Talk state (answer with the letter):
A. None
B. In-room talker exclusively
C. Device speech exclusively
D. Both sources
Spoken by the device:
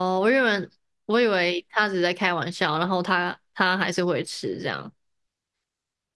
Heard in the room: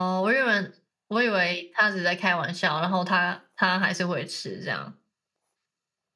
C